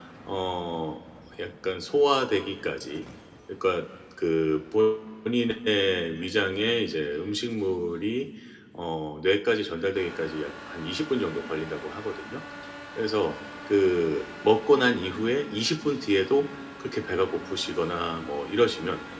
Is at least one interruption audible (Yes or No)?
No